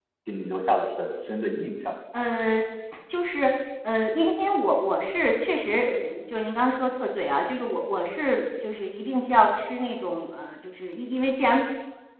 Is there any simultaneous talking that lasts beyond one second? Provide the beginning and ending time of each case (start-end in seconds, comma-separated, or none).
none